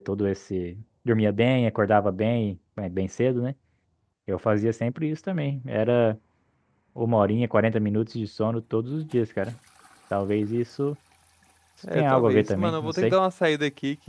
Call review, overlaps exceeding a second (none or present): present